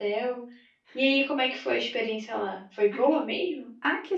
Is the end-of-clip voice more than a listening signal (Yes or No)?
Yes